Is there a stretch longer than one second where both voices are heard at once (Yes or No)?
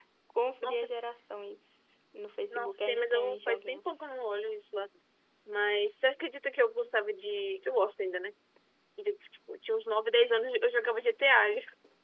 Yes